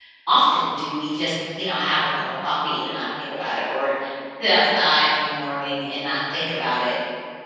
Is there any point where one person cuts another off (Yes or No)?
No